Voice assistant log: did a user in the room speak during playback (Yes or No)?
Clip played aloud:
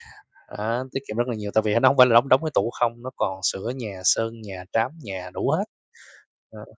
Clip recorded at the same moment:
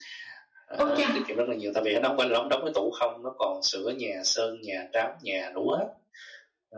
Yes